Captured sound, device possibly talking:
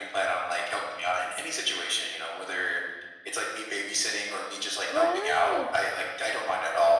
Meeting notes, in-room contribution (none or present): present